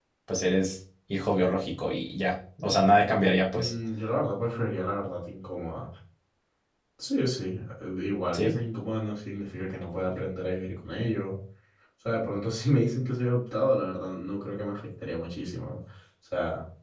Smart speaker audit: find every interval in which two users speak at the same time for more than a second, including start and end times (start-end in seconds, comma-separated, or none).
none